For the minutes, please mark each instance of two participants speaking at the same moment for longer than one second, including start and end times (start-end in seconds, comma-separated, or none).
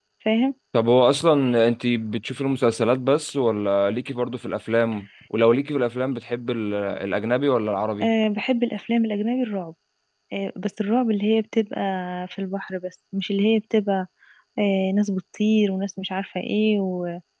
none